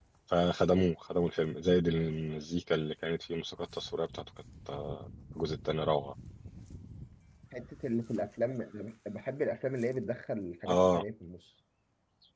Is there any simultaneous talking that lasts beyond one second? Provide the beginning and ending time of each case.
none

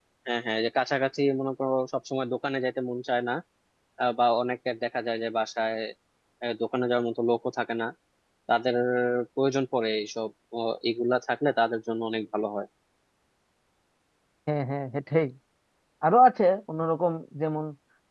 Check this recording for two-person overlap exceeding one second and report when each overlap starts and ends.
none

